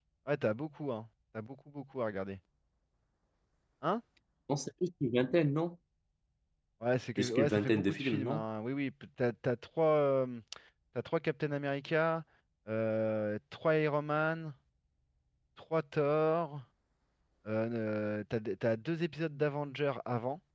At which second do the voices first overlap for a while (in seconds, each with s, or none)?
7.2 s